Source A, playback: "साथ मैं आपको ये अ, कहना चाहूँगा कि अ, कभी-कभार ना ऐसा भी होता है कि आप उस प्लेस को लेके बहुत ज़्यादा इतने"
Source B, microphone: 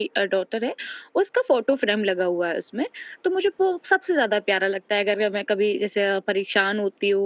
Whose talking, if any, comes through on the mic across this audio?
user only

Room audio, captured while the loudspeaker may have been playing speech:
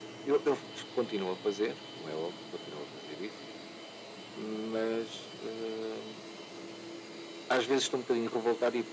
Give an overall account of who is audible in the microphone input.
echo only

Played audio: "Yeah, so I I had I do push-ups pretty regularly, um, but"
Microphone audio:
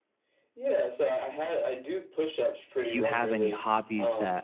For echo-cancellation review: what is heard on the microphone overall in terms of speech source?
both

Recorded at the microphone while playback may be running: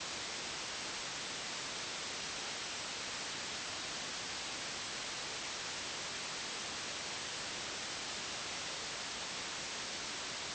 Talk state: neither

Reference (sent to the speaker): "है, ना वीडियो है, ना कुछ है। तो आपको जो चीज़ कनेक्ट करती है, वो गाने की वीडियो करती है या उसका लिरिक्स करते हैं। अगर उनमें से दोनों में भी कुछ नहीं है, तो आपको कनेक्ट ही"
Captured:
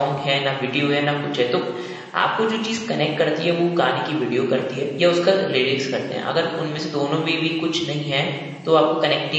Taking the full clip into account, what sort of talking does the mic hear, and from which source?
echo only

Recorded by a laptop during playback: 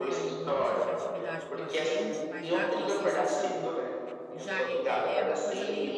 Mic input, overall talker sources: both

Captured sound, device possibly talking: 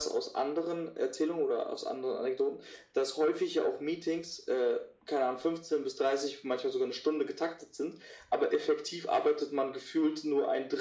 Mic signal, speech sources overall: echo only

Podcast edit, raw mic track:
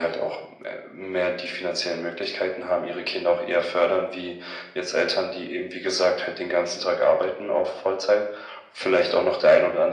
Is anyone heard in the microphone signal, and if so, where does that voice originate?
echo only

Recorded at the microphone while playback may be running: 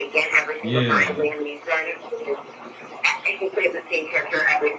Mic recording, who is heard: both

